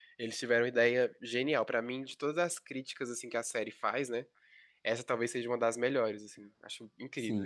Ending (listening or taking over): taking over